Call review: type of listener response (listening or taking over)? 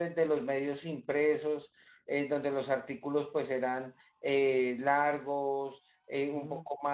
listening